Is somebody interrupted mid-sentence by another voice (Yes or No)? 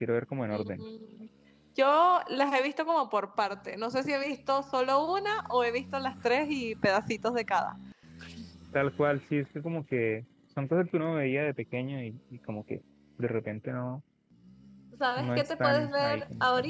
Yes